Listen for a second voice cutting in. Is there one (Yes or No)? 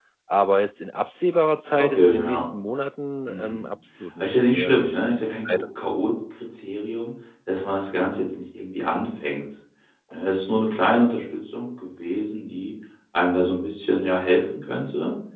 Yes